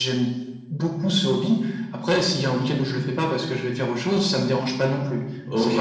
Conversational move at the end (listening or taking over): taking over